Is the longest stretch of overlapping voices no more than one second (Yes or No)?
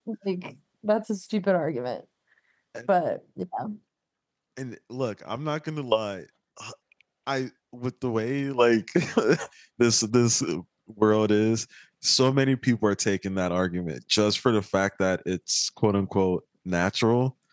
Yes